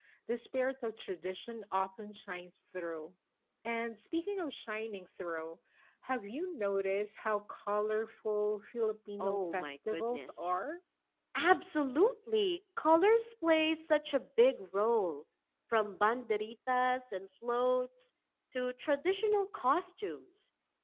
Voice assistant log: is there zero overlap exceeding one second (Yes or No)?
No